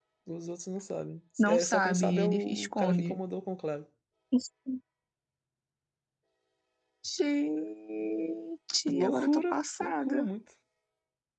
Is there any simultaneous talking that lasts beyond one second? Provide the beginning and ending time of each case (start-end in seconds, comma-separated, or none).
1.4-3.2, 8.9-10.3